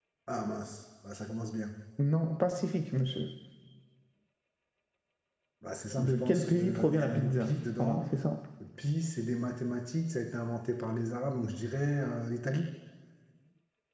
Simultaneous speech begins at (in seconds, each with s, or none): 6.0 s